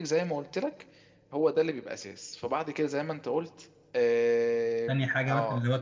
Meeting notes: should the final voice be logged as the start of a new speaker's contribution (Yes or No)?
Yes